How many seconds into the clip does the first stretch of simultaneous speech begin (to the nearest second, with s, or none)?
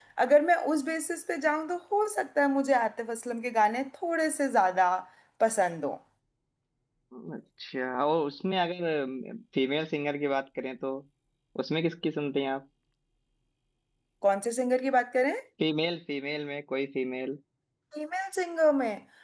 none